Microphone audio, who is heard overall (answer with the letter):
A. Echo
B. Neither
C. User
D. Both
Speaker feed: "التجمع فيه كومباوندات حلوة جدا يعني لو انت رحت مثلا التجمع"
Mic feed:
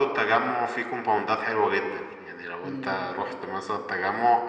D